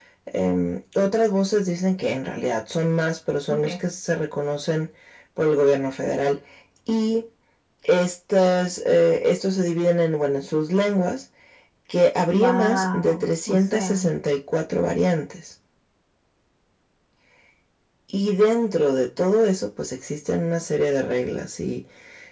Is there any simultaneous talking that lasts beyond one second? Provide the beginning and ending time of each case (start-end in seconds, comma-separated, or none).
12.3-14.1